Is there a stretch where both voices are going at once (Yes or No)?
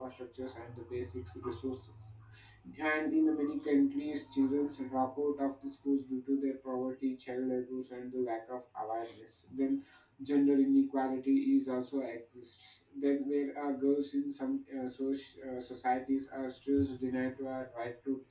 No